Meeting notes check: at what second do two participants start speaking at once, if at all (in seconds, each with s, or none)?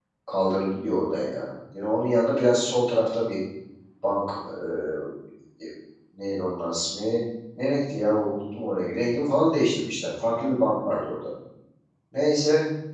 none